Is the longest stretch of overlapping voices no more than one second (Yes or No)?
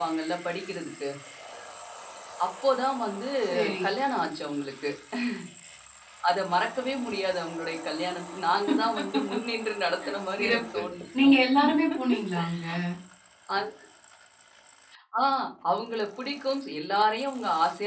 Yes